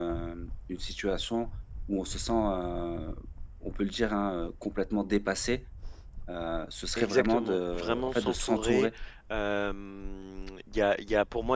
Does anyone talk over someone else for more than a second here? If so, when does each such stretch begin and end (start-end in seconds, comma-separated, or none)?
7.0-8.9